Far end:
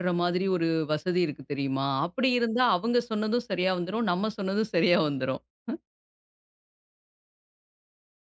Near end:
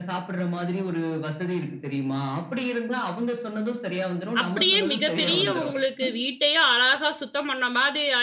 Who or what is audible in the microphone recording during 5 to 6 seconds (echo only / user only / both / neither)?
both